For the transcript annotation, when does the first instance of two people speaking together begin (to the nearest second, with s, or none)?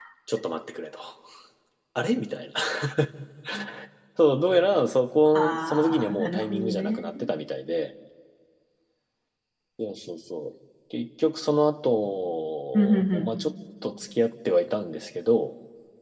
5 s